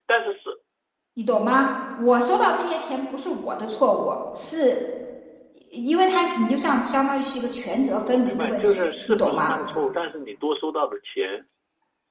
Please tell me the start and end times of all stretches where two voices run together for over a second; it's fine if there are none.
8.1-9.5

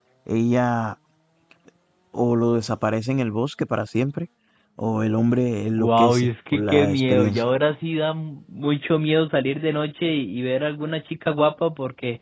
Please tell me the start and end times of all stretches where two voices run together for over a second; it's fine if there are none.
5.7-7.5

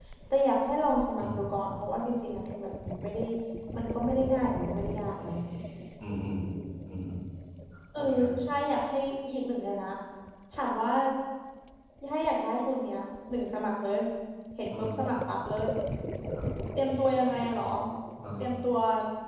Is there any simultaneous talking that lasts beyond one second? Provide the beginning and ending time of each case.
none

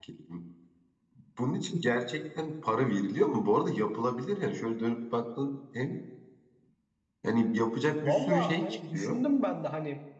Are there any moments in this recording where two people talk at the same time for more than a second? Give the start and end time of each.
8.0-9.3

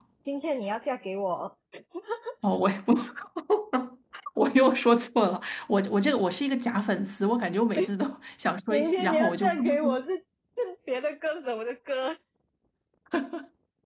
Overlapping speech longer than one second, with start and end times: 8.7-9.9

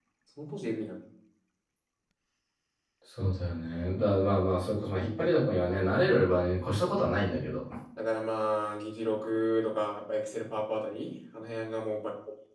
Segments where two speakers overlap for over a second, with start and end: none

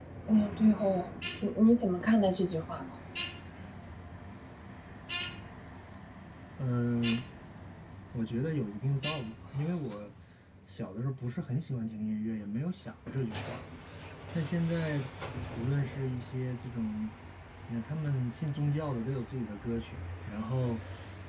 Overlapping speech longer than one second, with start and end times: none

